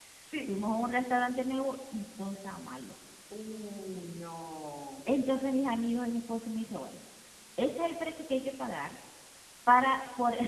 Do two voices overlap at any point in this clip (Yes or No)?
No